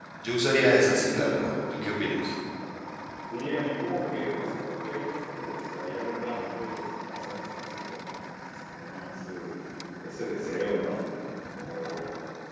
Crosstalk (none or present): none